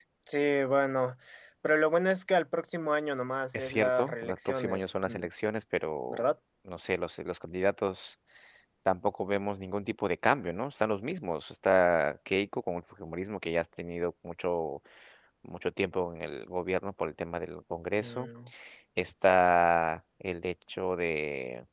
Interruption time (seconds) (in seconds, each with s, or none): 3.5 s